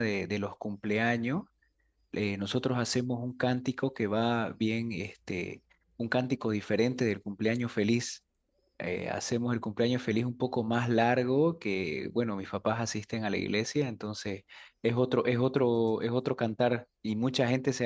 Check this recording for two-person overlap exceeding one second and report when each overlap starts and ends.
none

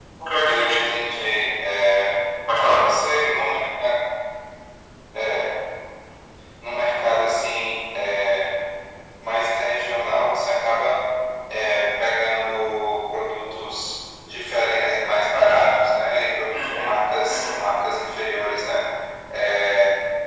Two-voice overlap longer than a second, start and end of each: 16.5-17.8

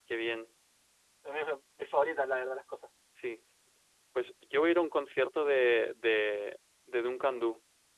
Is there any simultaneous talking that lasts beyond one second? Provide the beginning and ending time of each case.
none

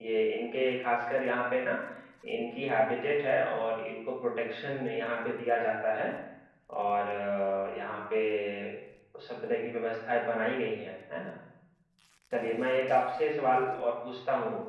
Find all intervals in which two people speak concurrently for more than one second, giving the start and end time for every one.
none

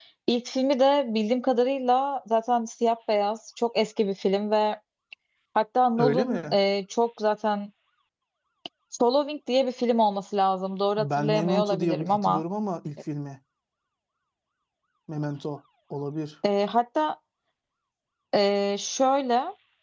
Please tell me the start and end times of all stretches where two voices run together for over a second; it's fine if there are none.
11.0-12.4

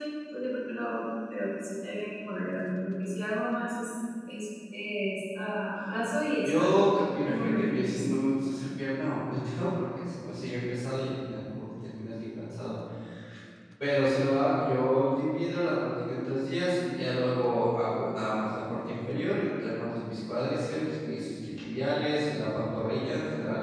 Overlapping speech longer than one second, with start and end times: 6.5-8.0

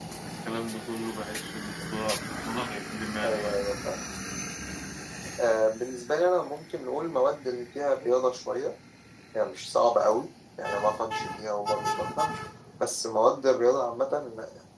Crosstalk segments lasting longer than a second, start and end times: none

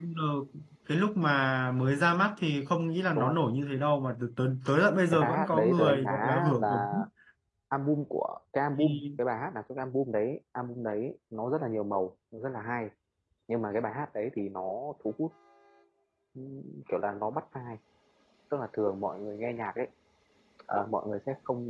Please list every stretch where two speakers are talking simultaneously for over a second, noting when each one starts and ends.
5.1-6.9

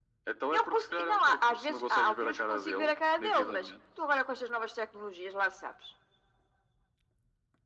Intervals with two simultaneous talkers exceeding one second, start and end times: 0.6-3.7

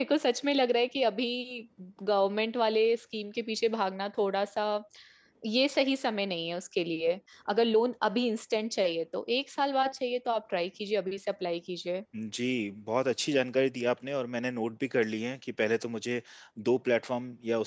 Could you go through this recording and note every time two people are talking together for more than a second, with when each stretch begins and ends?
none

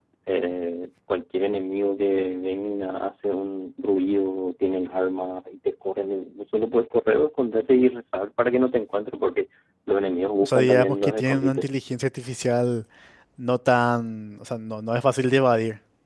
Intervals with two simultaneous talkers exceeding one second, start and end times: 10.4-11.6

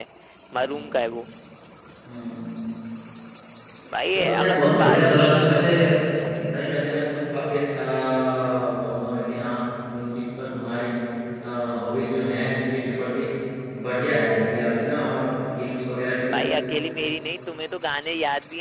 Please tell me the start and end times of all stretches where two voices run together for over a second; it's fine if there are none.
4.1-5.5

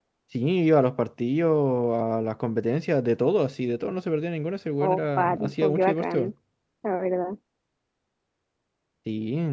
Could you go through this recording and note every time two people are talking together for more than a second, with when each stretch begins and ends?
4.8-6.3

